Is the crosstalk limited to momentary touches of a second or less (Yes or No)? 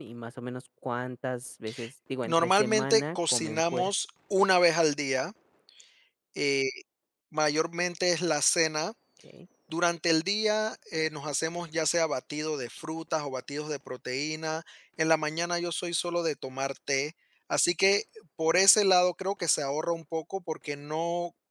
No